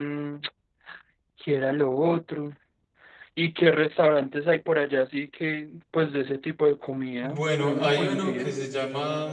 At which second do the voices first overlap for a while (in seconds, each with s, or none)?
7.2 s